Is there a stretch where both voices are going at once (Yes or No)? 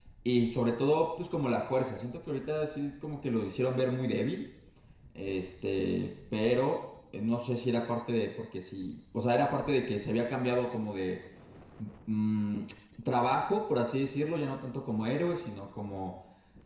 No